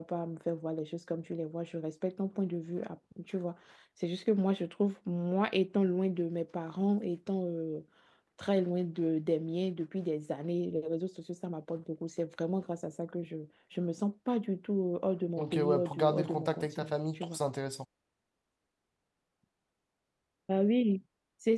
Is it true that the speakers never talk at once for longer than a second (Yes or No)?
No